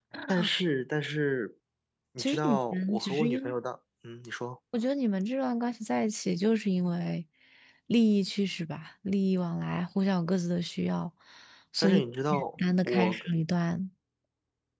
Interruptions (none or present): present